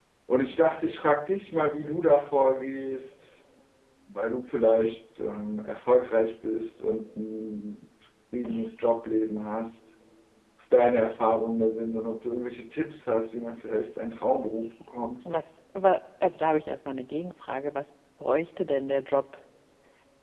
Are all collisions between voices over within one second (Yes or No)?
Yes